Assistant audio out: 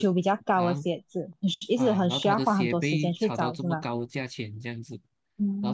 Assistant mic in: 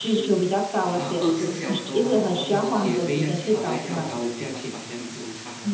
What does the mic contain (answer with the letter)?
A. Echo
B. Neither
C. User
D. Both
D